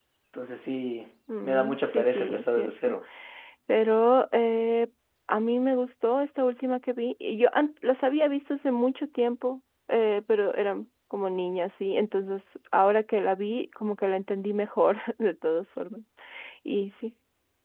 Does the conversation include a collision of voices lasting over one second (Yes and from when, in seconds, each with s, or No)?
Yes, from 1.3 s